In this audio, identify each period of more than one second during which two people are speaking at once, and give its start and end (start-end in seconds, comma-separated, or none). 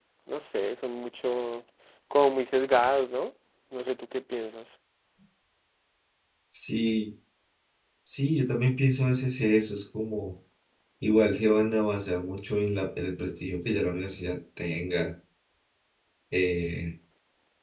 none